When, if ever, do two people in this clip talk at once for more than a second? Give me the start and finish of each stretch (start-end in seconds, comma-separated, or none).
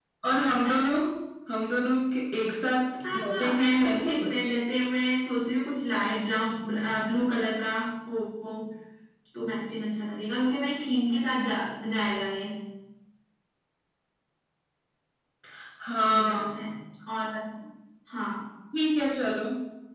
3.1-4.5